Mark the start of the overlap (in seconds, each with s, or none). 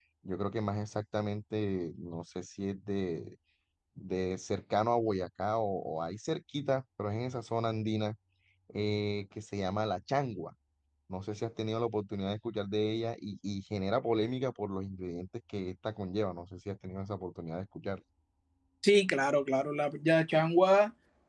none